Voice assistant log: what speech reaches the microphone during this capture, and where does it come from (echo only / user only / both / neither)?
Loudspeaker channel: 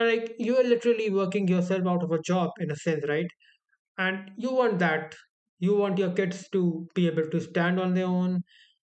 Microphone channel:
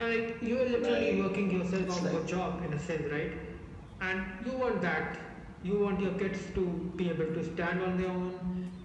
both